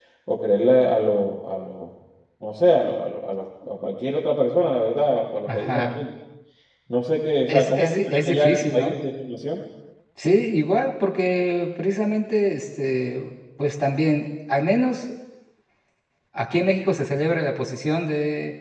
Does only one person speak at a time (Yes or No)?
No